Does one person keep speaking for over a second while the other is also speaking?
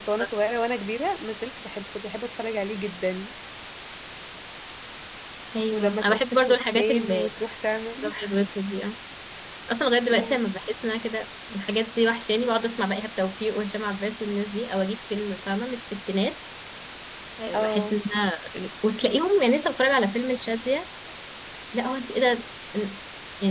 Yes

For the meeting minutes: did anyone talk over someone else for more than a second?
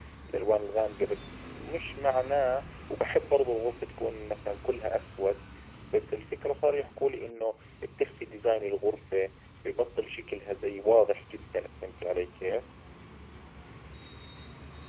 No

